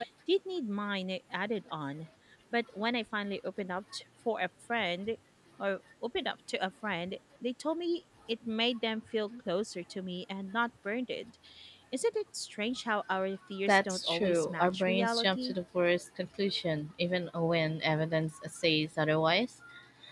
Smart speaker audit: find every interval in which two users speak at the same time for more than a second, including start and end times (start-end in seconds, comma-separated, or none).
13.7-15.6